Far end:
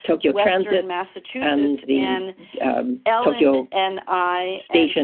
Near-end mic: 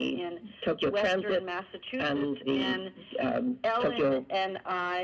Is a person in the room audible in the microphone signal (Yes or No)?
No